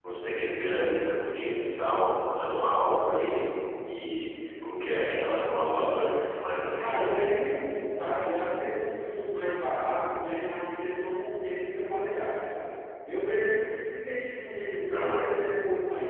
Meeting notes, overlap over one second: none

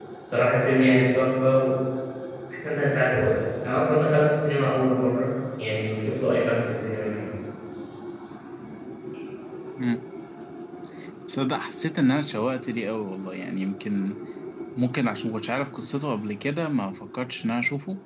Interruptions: none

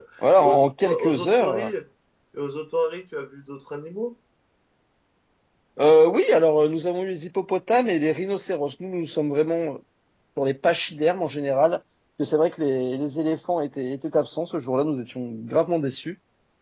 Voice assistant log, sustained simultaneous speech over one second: present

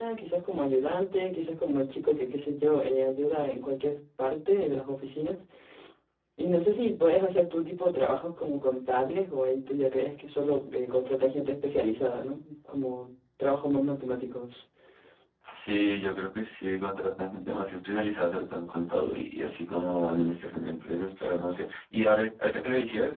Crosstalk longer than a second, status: none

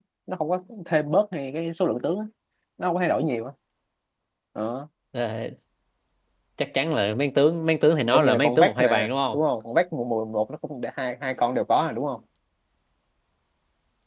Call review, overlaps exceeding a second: present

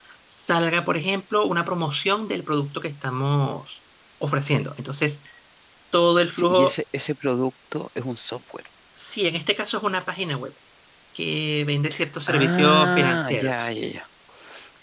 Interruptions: present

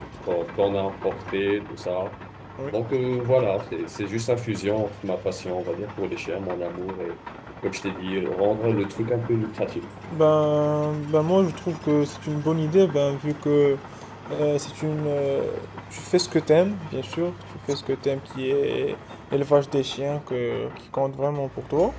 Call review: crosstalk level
none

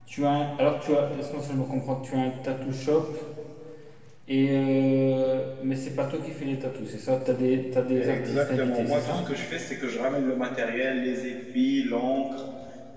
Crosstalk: present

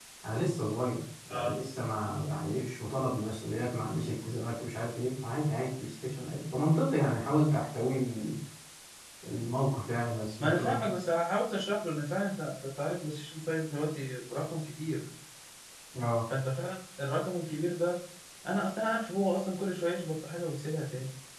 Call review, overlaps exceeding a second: none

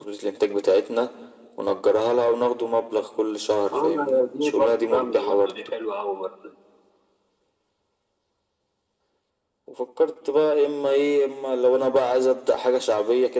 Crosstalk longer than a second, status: present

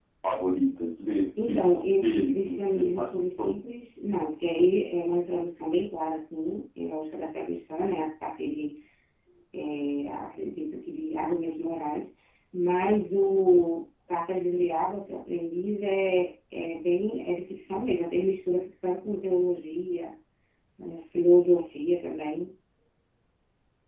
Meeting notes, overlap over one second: present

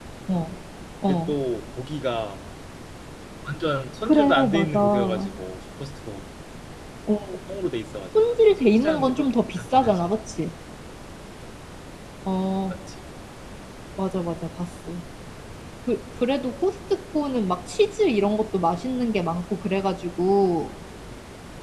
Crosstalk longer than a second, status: present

